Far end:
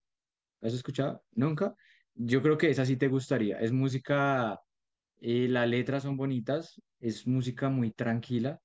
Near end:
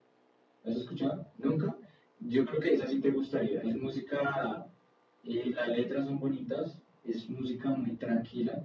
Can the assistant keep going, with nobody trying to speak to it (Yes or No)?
Yes